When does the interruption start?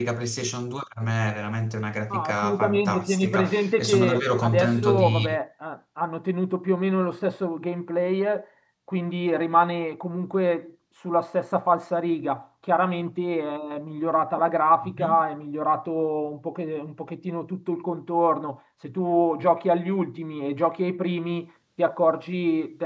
2.1 s

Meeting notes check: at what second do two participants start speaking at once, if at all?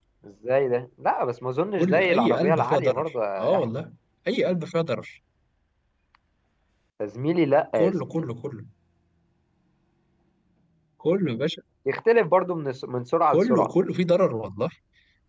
1.7 s

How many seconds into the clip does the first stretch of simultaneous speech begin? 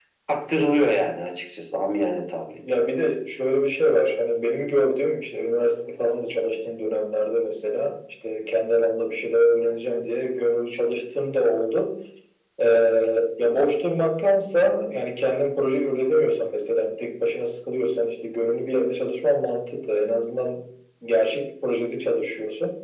none

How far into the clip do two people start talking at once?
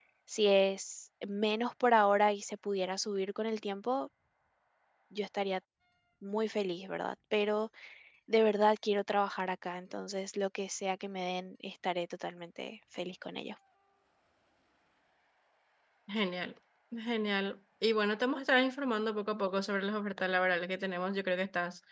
none

